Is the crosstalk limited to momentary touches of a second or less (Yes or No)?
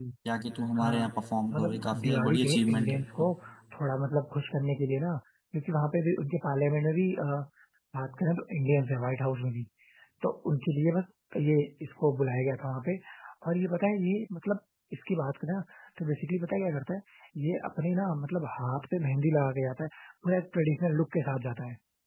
No